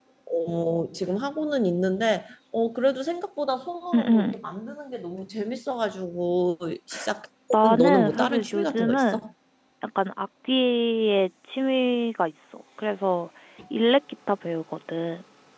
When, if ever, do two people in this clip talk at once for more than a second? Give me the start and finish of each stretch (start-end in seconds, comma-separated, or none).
7.8-9.3